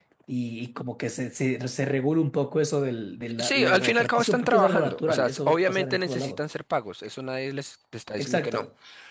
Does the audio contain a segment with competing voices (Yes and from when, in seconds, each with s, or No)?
Yes, from 3.4 s